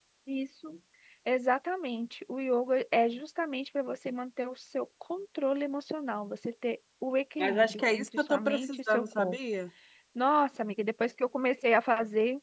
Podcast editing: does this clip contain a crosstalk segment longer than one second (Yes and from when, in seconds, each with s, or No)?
Yes, from 7.4 s